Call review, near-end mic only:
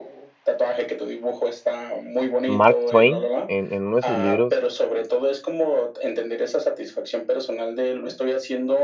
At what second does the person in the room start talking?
2.5 s

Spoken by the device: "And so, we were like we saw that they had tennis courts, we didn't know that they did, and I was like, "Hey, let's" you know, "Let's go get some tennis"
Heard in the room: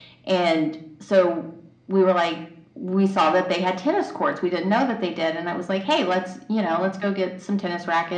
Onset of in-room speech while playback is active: none

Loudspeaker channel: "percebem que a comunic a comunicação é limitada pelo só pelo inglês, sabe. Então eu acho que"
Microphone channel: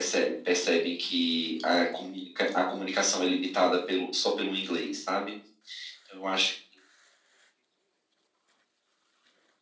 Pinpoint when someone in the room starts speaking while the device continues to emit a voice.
none

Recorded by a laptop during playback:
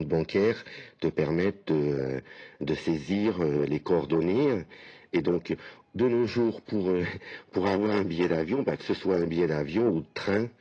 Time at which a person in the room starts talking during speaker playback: none

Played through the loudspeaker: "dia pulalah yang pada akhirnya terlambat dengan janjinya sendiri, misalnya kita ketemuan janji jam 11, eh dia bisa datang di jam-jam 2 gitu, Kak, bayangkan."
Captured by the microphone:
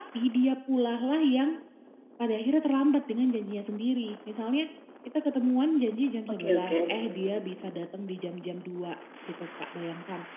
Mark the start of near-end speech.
6.3 s

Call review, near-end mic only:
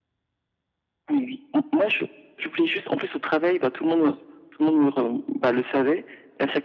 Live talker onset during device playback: none

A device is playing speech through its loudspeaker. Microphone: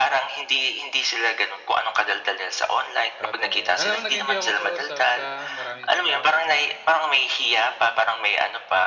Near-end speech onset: 3.1 s

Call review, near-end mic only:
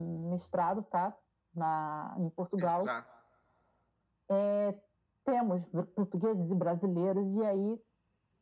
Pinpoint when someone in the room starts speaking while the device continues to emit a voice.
2.6 s

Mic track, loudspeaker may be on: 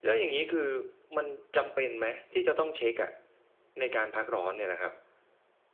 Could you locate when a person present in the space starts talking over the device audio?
none

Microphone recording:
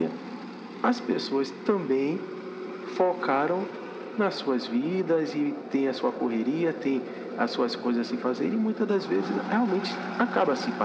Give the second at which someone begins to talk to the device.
none

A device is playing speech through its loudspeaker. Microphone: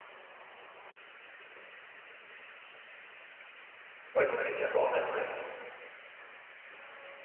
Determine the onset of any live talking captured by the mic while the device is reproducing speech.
4.1 s

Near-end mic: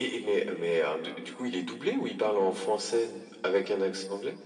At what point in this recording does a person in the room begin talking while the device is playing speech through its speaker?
none

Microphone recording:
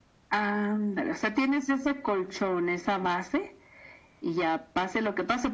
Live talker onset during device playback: none

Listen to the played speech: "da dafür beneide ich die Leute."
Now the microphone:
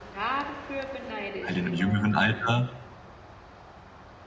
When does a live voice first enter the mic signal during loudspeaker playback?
1.4 s

